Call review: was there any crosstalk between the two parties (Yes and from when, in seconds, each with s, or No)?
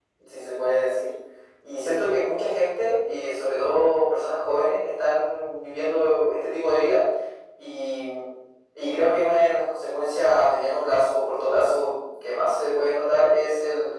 No